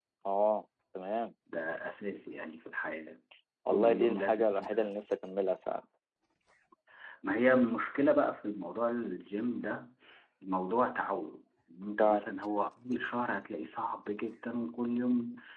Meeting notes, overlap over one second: present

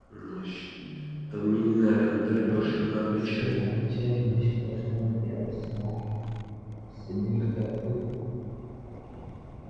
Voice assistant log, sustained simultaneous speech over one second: none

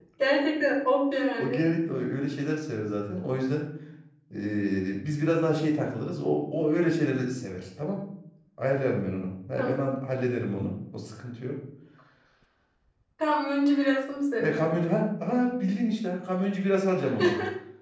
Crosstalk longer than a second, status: none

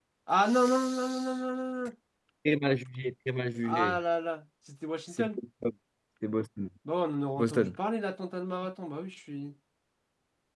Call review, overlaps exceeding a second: none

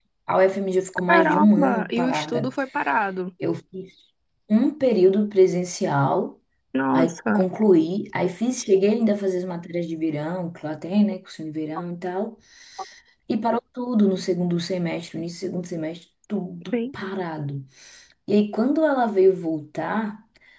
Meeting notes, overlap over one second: present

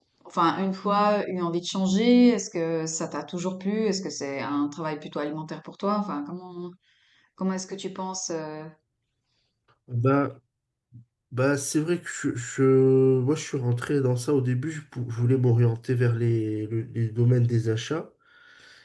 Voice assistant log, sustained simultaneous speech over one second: none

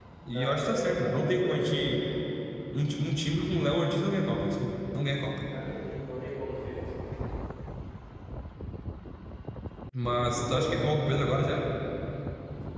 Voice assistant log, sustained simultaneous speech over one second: present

